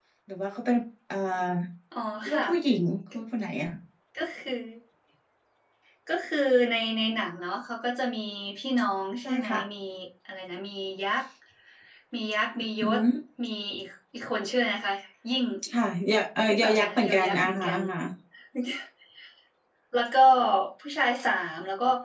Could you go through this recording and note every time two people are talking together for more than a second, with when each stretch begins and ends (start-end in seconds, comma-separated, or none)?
16.5-17.8